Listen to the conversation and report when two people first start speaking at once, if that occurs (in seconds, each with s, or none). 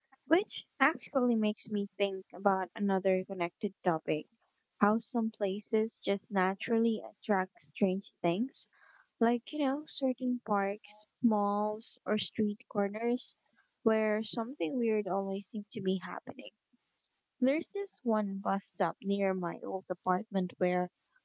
none